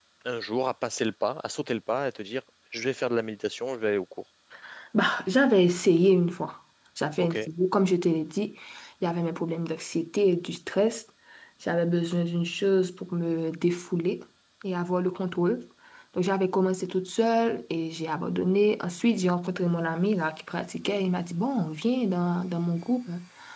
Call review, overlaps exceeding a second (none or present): none